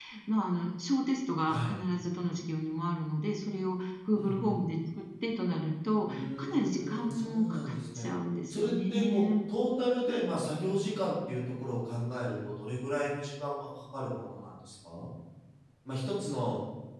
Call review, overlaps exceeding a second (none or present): present